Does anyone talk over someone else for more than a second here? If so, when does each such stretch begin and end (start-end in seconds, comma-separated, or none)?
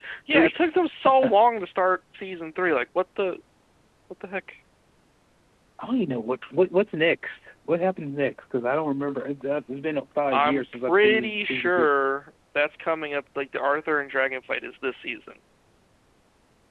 10.3-11.9